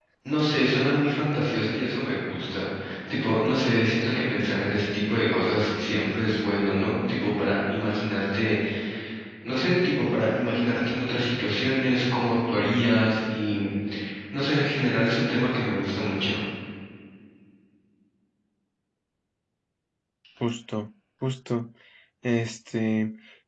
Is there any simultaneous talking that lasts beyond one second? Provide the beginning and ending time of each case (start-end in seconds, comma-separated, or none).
none